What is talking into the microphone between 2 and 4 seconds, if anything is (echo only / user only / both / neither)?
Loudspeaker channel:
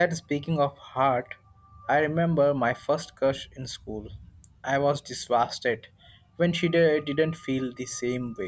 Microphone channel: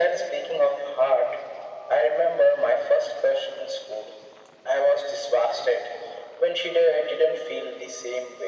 echo only